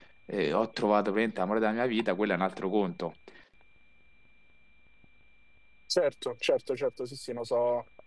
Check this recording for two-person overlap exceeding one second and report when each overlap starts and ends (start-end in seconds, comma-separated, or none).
none